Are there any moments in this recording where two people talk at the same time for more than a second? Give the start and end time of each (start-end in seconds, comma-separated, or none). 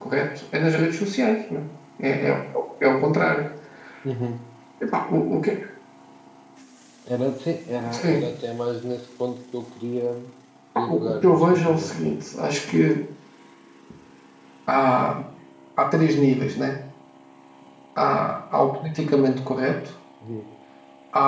10.9-12.2